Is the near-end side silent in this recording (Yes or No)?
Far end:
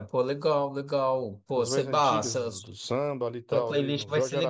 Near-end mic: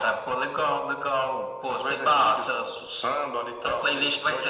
Yes